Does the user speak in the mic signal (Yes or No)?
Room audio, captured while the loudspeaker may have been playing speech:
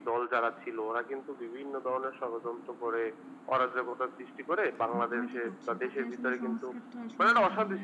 Yes